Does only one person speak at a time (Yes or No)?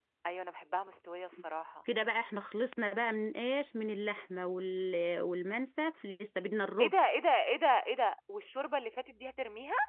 Yes